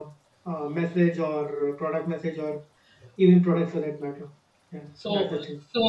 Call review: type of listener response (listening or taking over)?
taking over